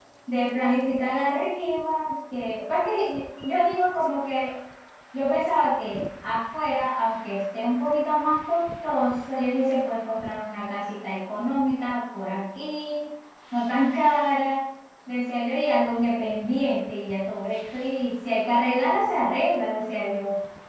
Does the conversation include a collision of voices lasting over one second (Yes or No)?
No